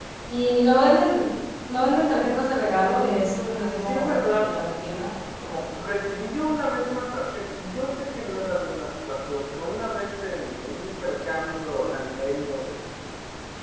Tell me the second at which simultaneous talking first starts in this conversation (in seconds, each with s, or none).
2.7 s